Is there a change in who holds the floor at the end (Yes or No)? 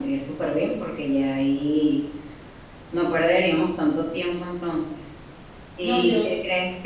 No